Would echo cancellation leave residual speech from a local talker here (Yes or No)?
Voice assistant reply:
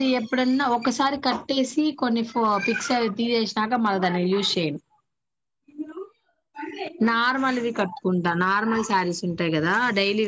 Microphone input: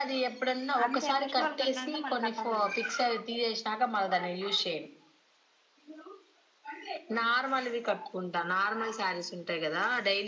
Yes